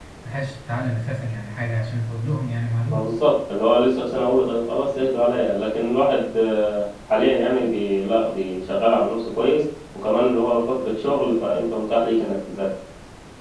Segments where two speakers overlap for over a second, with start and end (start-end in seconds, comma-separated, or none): none